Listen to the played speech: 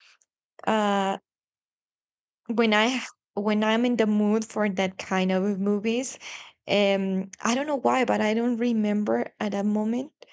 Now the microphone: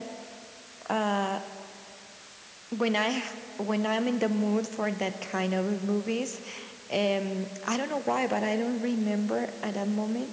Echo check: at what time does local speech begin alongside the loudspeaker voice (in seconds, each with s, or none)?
none